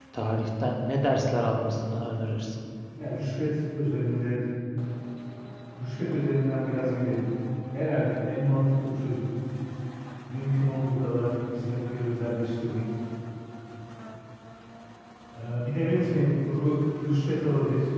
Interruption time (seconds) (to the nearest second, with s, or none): none